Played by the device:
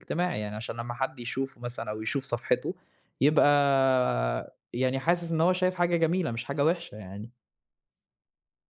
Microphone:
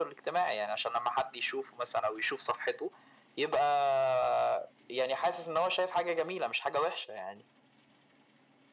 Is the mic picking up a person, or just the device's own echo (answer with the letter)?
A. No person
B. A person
A